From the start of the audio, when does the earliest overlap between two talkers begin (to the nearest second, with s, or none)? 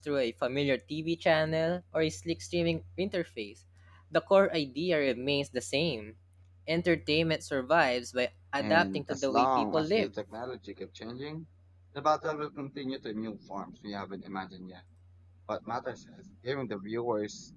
9 s